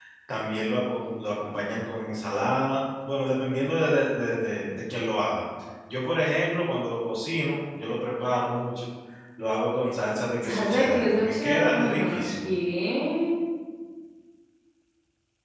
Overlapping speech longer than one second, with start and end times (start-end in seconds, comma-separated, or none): 10.4-12.5